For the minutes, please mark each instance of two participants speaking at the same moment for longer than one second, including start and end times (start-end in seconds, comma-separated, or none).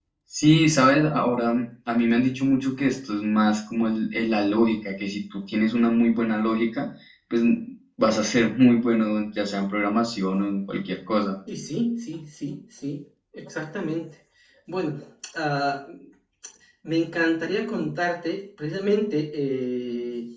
none